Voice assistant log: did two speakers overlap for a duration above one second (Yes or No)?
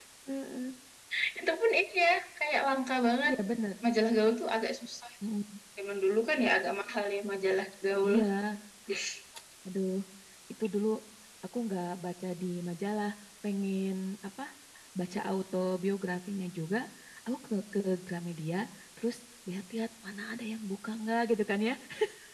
No